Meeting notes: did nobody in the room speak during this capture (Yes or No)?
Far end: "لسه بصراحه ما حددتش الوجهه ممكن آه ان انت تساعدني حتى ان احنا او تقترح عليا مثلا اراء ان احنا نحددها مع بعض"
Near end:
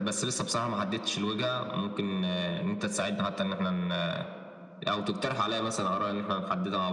Yes